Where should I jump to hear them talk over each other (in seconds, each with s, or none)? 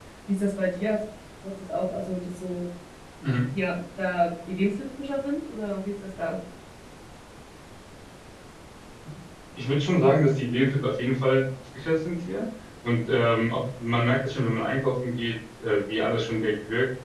none